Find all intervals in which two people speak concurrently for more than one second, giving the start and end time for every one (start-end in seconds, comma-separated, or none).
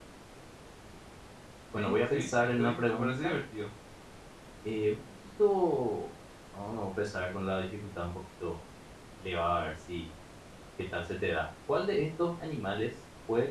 1.8-3.3